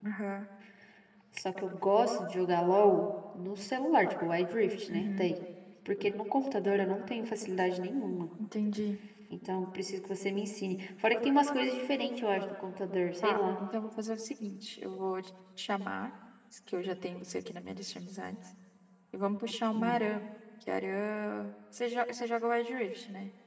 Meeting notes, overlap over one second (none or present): none